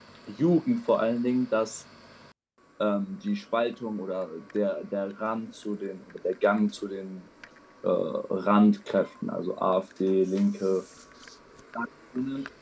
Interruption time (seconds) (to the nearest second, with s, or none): none